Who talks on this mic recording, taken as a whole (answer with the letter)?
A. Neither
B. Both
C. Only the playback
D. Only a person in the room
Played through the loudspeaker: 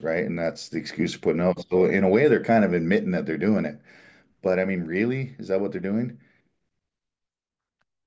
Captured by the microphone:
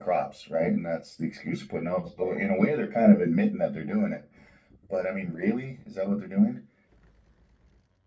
C